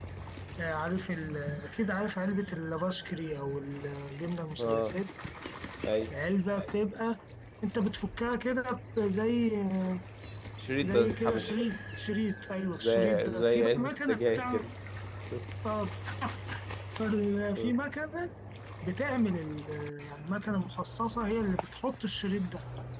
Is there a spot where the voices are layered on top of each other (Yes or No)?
Yes